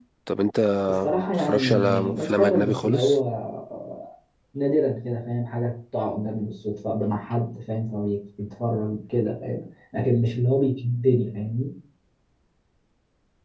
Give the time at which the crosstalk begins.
1.1 s

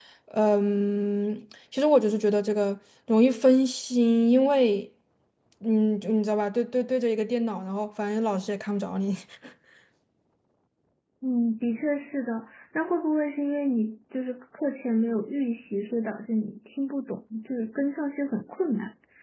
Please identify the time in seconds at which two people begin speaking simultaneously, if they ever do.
none

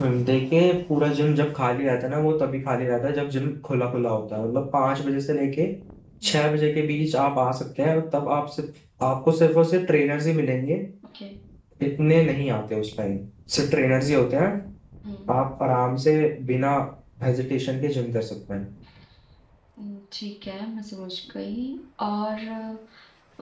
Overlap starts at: none

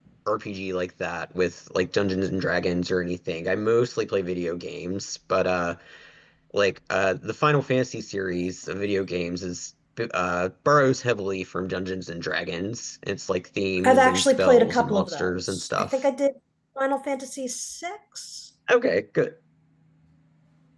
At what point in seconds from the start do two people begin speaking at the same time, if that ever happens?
13.8 s

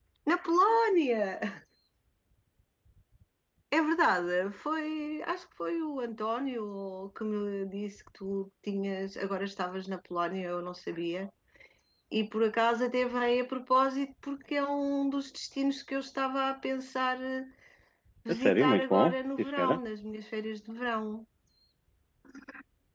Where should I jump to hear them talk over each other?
18.3 s

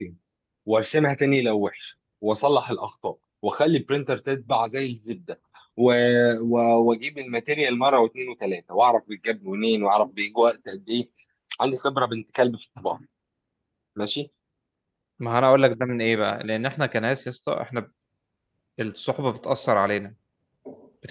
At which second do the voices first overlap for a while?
none

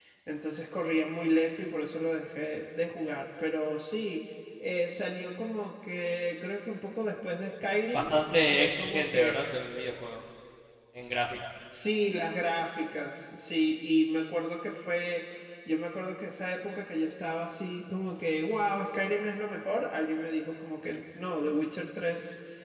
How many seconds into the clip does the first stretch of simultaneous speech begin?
7.9 s

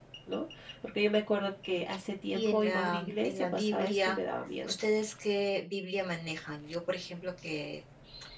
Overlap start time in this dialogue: 2.3 s

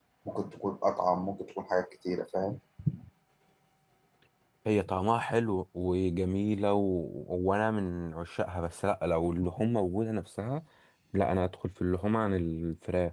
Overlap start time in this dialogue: none

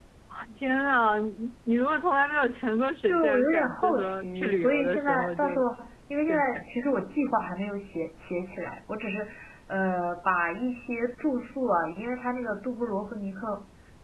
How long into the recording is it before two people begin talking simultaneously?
3.1 s

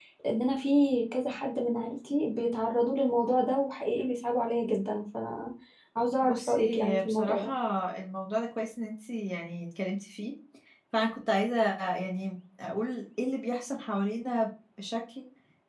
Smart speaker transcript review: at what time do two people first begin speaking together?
6.2 s

